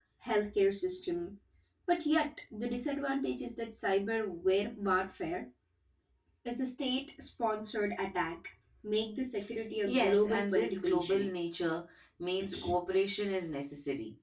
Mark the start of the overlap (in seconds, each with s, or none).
9.9 s